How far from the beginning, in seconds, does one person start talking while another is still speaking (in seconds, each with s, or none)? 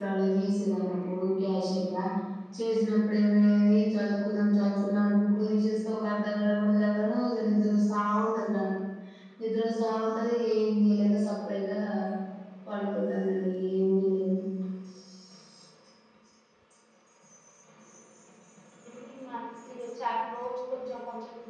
none